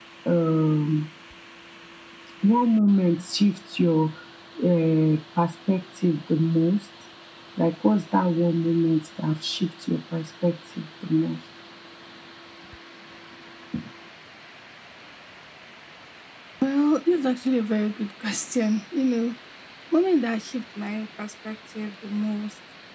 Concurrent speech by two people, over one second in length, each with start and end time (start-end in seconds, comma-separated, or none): none